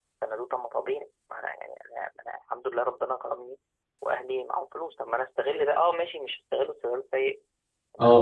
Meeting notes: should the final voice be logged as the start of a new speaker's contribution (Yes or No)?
No